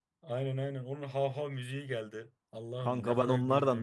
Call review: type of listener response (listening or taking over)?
taking over